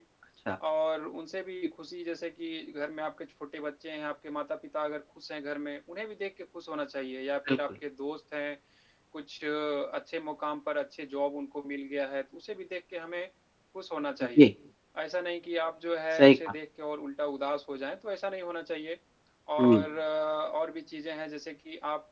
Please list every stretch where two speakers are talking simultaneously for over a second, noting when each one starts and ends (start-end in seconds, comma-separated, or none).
none